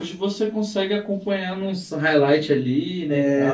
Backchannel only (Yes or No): No